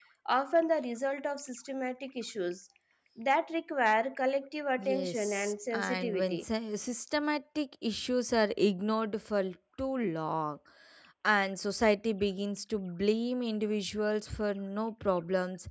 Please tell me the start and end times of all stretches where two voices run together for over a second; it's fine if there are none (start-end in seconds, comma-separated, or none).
4.8-6.4